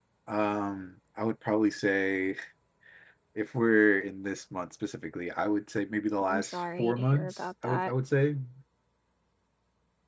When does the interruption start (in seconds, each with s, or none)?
6.2 s